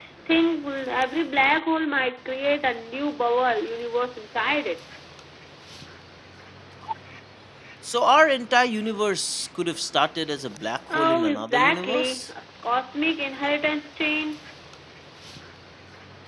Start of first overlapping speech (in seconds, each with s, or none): 10.9 s